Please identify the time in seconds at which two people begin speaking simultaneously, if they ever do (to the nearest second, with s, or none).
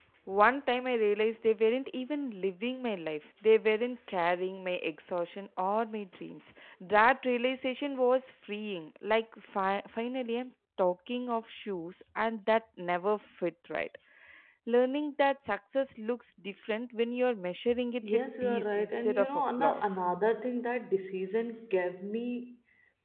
18 s